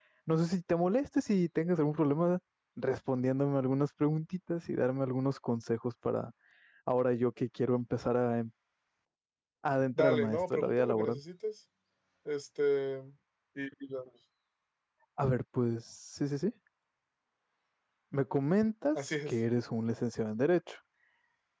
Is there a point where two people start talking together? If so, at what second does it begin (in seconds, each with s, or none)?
10.0 s